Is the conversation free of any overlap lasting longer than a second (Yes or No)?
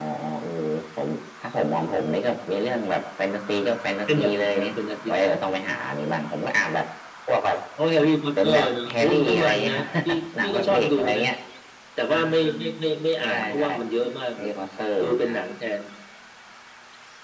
No